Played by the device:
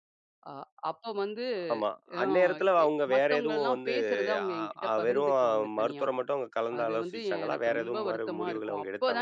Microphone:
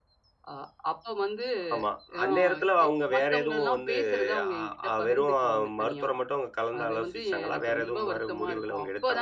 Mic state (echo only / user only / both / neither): echo only